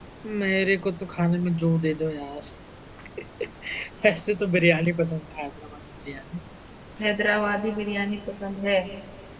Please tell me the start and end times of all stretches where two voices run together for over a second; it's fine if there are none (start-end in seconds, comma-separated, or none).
none